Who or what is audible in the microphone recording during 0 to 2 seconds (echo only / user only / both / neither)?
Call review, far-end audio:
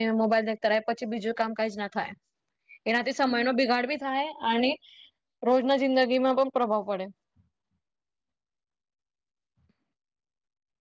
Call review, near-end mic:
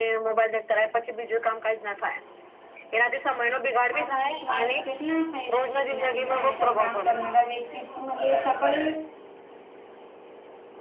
echo only